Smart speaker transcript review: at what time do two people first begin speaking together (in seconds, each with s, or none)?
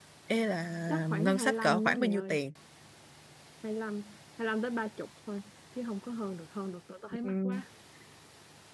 0.9 s